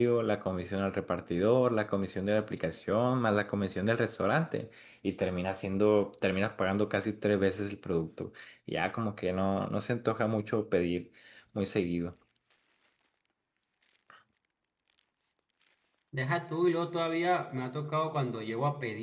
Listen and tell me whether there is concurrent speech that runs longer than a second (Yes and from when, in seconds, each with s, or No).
No